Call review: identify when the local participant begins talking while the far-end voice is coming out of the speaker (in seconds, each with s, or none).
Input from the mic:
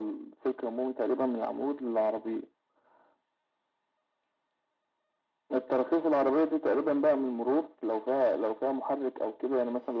none